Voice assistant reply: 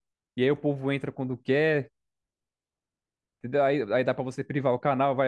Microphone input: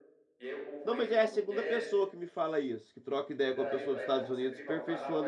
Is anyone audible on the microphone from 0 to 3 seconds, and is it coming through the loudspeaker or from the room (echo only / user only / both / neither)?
both